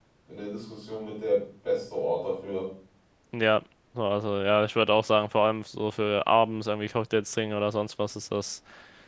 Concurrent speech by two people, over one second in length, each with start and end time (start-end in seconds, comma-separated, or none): none